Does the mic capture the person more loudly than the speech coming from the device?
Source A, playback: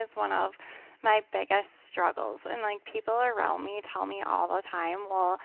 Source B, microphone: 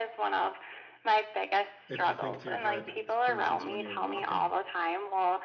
No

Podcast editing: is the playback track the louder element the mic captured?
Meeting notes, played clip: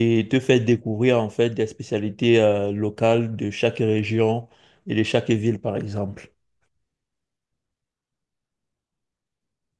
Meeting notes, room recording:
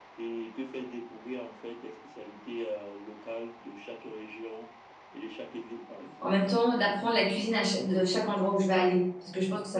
No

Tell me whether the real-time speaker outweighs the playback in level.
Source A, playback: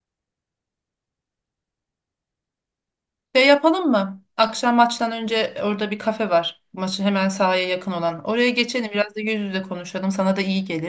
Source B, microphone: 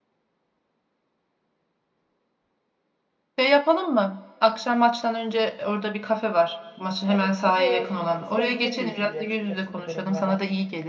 No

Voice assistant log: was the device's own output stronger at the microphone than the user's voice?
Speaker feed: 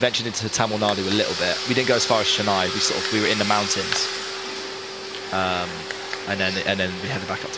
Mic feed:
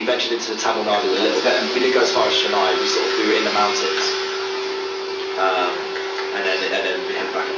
Yes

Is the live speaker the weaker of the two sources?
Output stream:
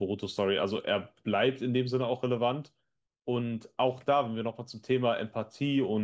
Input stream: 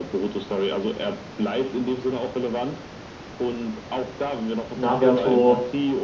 No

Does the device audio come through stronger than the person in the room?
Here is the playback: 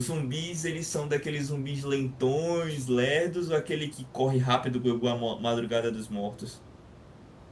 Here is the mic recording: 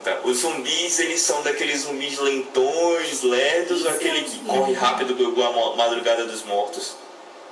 Yes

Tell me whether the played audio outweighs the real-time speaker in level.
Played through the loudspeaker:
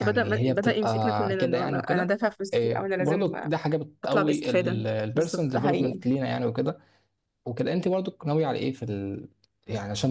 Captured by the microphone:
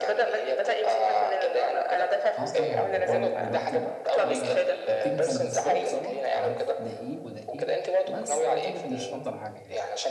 Yes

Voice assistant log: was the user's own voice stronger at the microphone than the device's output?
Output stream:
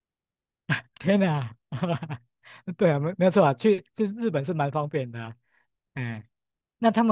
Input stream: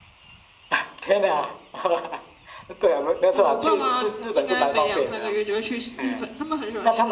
No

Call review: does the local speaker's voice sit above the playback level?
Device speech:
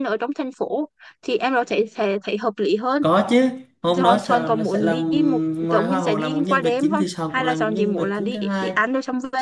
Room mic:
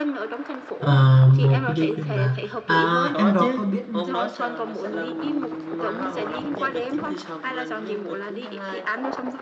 Yes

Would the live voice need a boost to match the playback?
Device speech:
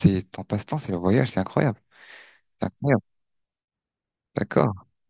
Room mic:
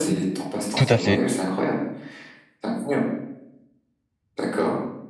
No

